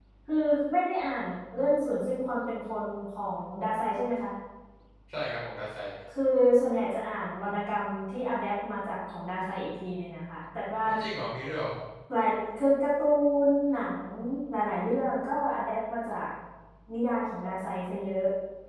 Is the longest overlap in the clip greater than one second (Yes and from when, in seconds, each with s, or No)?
No